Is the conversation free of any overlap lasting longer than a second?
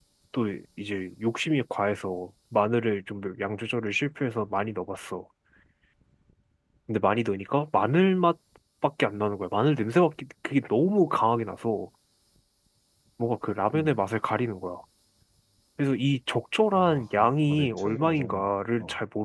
No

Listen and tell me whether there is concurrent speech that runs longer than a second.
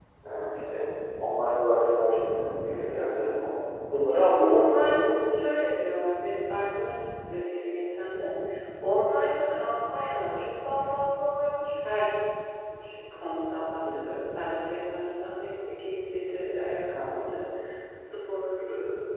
No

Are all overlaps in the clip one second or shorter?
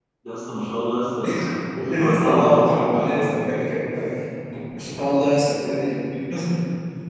No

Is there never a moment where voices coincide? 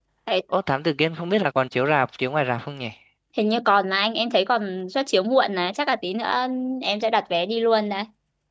Yes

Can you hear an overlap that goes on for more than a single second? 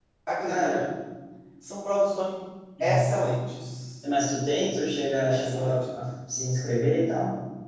No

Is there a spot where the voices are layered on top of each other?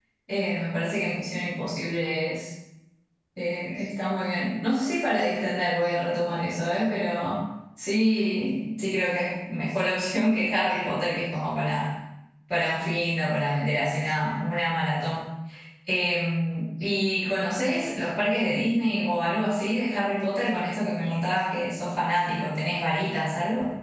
No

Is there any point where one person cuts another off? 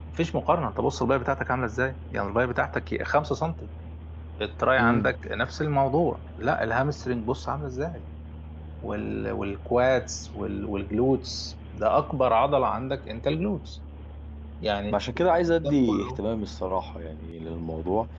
Yes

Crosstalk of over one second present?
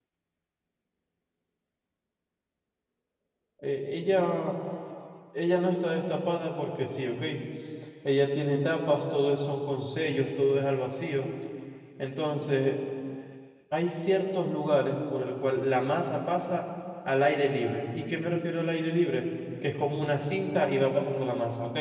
No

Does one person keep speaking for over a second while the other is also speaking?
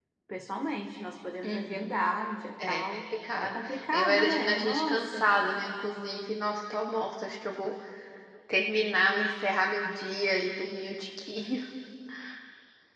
Yes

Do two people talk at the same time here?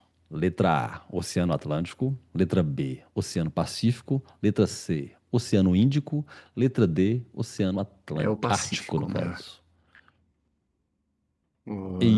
Yes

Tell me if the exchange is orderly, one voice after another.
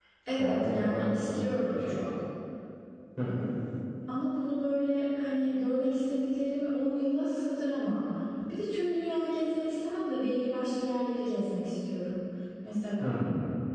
No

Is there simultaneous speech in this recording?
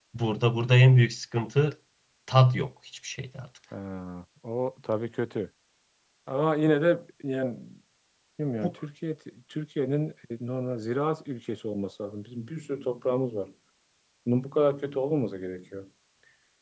No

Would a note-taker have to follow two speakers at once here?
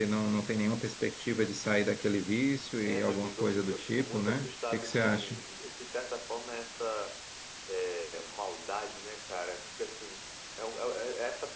Yes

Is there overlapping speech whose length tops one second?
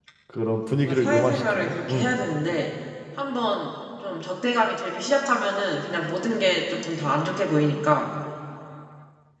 Yes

